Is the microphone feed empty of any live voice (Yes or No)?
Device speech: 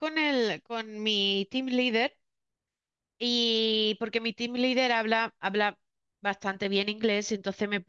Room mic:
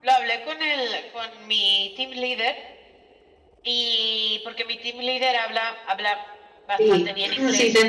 No